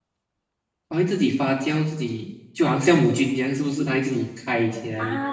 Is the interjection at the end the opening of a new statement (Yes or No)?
Yes